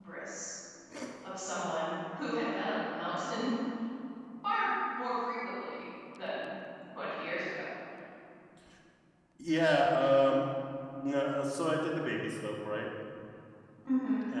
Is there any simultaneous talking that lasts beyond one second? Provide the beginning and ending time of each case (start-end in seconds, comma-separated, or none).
none